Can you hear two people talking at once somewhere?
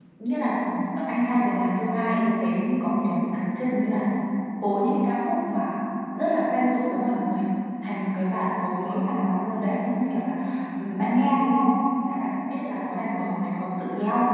No

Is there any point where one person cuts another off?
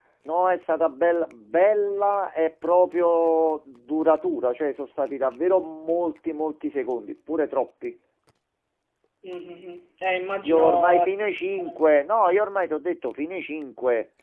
Yes, from 10.4 s

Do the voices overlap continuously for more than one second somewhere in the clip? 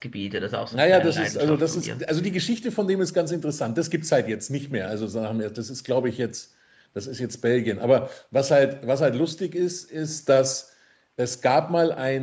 Yes, from 0.7 s

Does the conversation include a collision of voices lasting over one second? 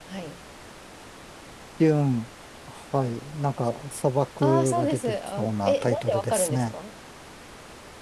Yes, from 4.4 s

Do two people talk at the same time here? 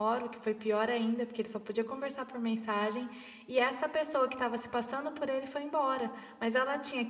No

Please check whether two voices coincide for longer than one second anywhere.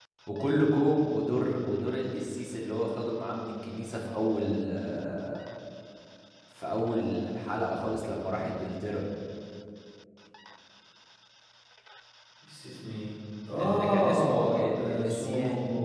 Yes, from 13.6 s

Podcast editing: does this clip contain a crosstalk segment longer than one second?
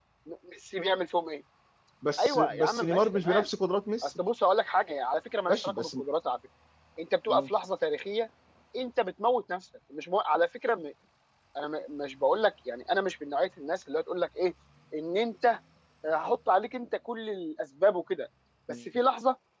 Yes, from 2.2 s

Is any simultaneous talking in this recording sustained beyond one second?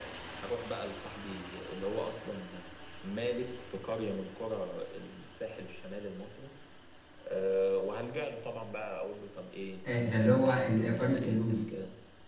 Yes, from 9.8 s

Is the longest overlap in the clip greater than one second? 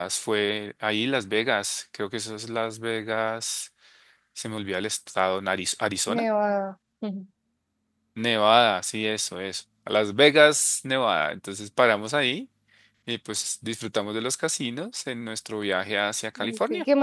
No

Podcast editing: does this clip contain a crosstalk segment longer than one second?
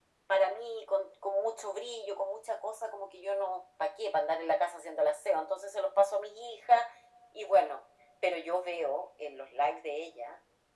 No

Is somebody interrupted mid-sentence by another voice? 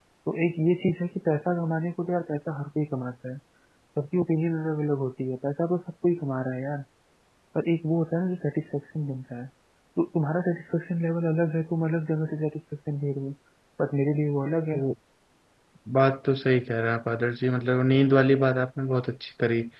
No

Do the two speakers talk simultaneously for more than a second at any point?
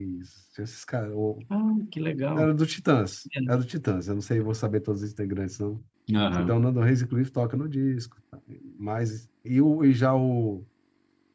No

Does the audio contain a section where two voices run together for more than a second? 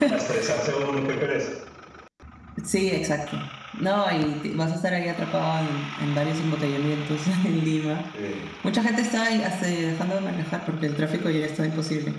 No

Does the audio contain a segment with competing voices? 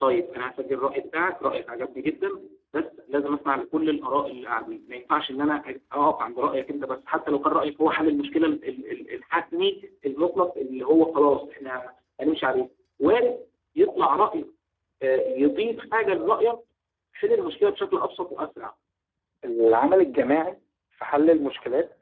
No

